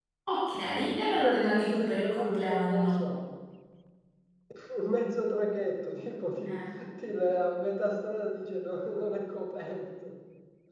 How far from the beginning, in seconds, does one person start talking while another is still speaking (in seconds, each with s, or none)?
1.0 s